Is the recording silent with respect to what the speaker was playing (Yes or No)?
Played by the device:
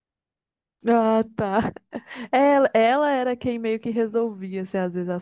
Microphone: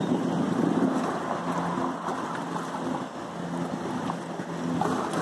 Yes